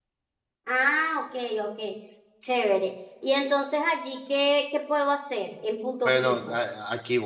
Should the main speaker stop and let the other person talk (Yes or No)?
Yes